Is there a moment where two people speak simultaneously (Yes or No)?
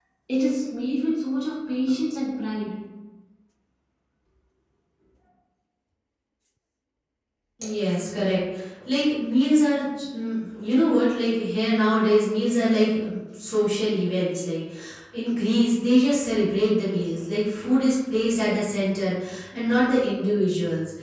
No